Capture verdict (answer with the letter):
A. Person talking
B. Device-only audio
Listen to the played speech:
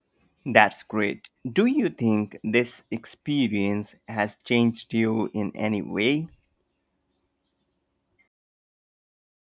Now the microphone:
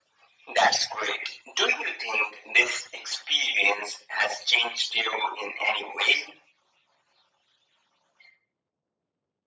B